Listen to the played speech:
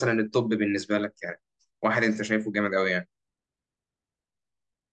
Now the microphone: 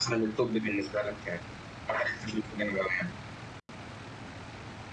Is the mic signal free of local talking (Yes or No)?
Yes